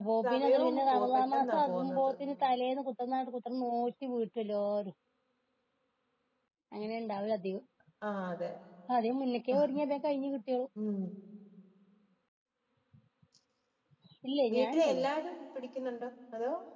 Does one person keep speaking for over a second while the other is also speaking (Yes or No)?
Yes